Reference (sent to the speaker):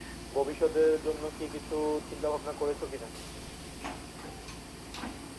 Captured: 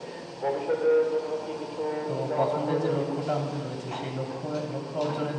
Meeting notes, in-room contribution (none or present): present